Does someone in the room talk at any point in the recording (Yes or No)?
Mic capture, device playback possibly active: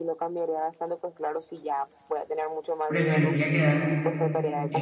Yes